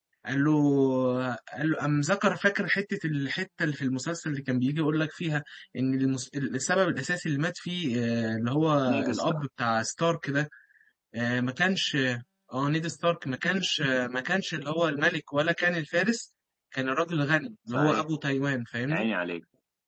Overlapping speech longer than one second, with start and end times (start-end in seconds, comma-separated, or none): none